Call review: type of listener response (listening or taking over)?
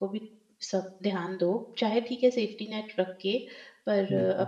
listening